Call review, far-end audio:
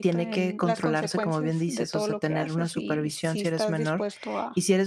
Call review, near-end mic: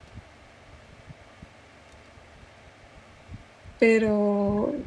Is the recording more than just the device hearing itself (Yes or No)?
Yes